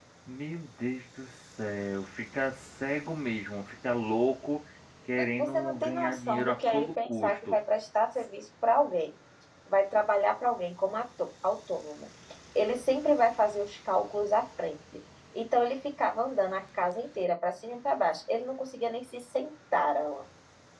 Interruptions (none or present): present